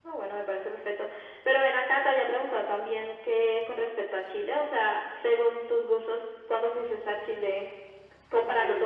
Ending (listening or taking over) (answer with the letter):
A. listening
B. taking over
A